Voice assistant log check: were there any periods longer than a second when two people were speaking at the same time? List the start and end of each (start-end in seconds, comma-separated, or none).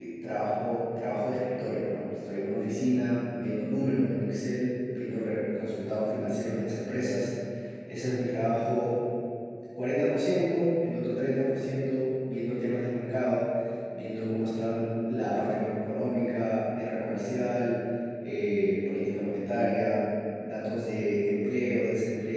none